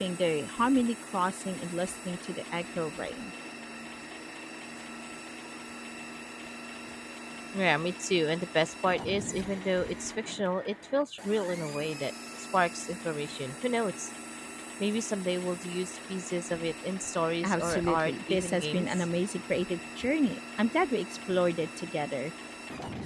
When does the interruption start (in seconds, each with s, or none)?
17.4 s